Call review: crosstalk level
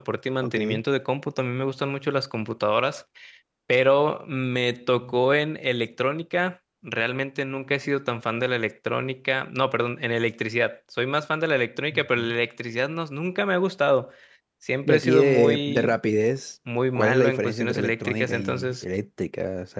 present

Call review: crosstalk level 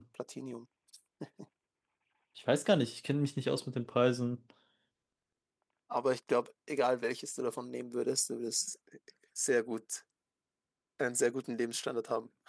none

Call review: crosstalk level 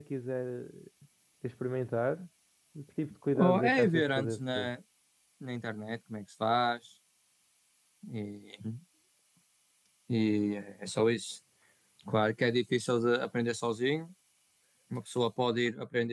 present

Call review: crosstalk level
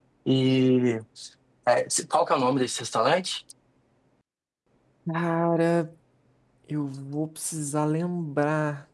none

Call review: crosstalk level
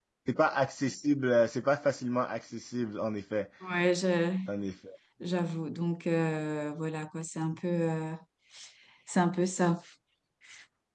none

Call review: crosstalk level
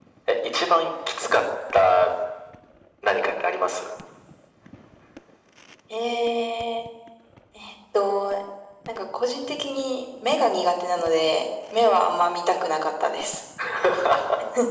none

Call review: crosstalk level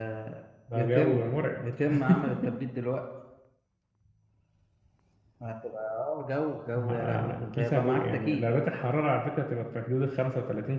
present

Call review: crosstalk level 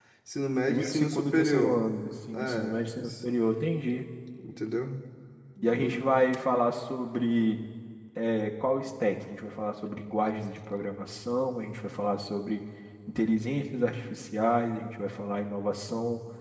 present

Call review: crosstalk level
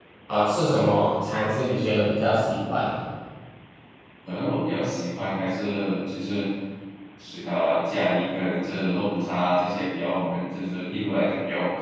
none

